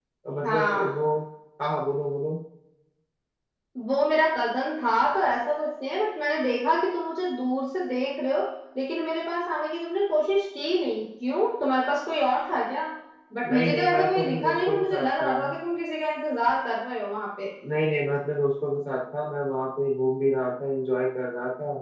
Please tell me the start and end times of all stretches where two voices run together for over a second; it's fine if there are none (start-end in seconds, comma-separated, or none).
13.5-15.3